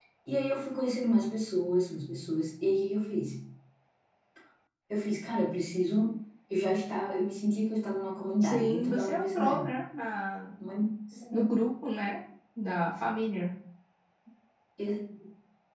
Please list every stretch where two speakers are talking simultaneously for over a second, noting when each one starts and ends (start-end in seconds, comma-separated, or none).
8.4-9.7